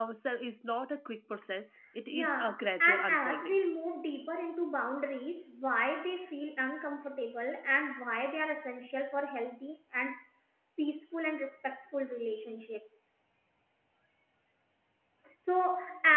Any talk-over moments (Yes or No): Yes